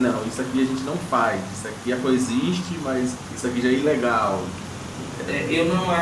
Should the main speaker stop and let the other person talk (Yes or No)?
Yes